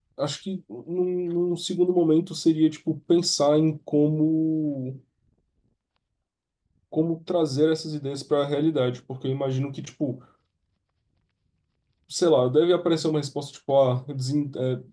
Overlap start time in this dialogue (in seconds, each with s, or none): none